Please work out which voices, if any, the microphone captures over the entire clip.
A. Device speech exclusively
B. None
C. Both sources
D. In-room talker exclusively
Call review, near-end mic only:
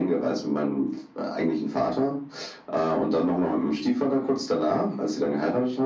A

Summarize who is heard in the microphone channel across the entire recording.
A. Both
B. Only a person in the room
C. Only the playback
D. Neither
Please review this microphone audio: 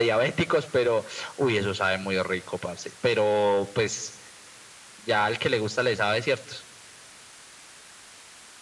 C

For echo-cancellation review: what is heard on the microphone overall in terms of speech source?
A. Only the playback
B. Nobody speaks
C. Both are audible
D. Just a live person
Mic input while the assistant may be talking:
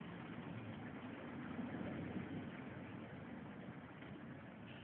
B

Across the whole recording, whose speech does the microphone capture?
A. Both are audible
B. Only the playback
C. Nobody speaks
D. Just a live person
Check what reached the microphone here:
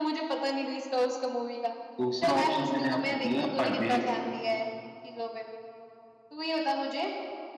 A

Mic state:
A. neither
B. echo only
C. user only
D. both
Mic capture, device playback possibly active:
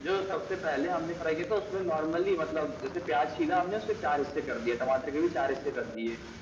B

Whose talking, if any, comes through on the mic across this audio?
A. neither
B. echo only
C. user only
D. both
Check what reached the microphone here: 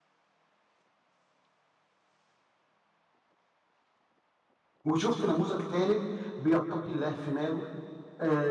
C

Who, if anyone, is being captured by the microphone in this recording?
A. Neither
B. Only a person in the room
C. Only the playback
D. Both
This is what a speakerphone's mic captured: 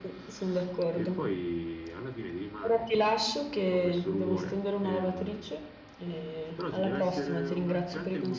D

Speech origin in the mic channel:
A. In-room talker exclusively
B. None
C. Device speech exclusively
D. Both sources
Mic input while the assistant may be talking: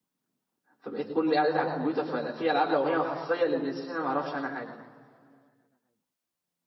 A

